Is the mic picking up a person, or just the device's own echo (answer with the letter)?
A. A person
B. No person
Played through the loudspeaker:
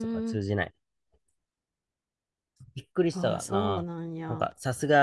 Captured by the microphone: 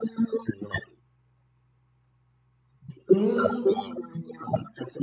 A